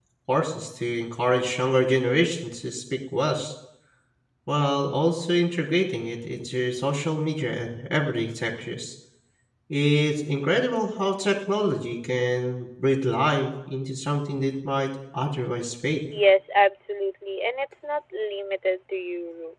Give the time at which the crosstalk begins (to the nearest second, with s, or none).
none